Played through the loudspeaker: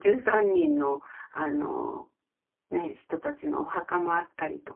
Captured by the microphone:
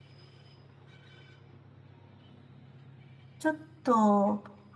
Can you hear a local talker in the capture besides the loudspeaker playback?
Yes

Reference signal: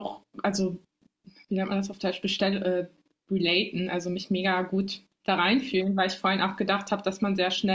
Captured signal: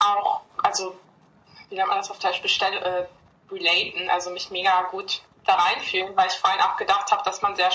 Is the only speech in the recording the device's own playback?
Yes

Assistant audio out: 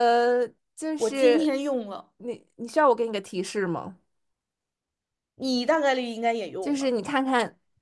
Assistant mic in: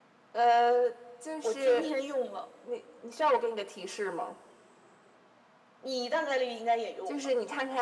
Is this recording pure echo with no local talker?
Yes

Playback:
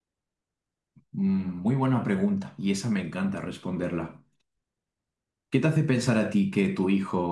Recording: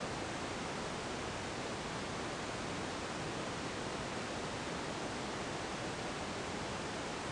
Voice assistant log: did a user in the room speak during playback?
No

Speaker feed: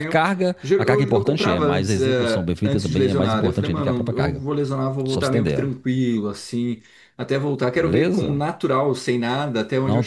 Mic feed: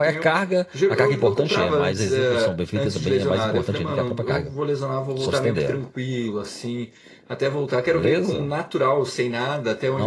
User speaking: No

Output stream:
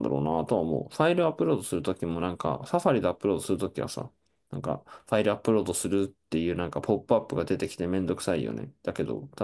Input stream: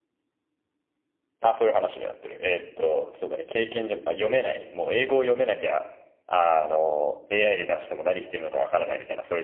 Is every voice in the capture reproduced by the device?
No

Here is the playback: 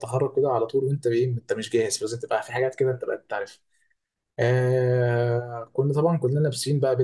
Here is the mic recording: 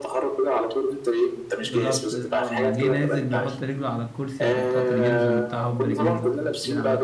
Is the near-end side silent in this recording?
No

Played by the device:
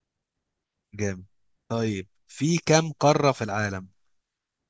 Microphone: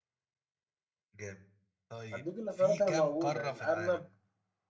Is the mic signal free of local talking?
No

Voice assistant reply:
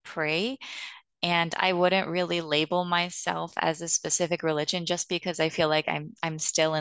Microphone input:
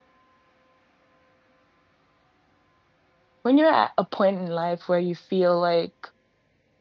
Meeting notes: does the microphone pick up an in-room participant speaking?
Yes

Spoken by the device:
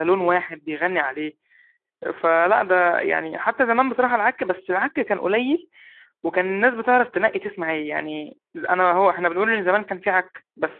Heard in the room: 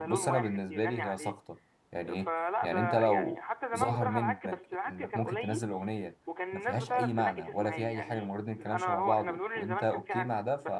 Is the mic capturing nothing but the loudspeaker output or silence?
No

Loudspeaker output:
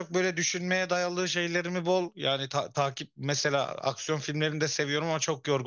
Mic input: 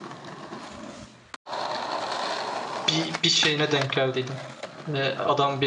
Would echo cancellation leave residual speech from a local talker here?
Yes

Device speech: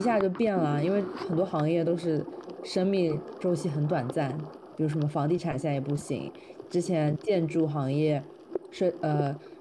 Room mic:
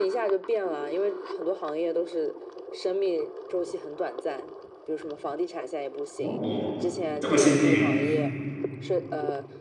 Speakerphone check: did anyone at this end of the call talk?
Yes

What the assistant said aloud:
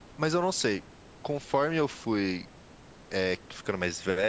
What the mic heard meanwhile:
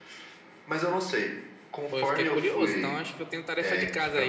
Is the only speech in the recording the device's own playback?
No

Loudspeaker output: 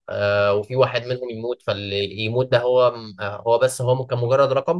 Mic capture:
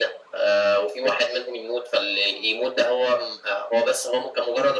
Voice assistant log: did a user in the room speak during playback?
No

